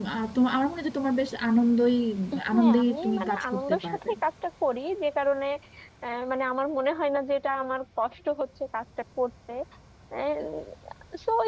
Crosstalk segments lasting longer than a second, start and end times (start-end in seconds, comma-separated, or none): 2.5-4.1